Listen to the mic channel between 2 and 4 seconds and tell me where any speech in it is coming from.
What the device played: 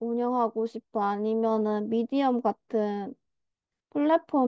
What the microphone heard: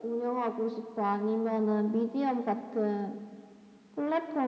echo only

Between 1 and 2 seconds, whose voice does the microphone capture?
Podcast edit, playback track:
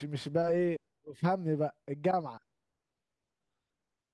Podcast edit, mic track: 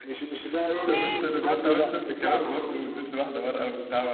both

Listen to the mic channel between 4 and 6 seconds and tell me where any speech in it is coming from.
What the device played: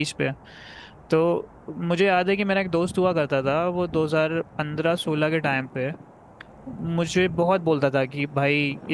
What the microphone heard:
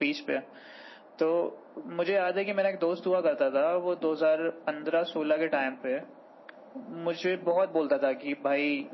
echo only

